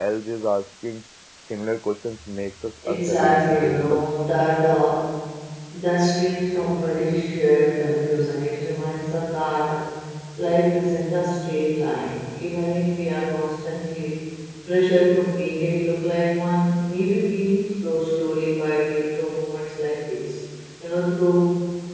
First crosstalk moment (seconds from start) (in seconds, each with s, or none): 2.8 s